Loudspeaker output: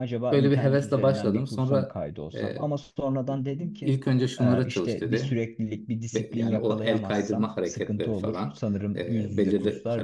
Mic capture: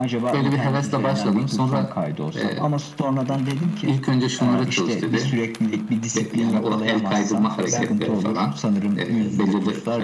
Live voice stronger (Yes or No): No